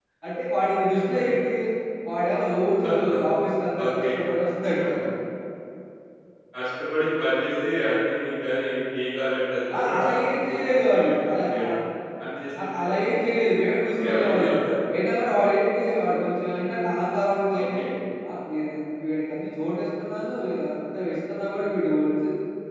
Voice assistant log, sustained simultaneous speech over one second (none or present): present